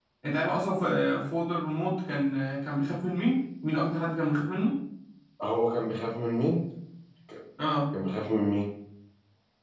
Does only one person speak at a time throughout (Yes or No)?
Yes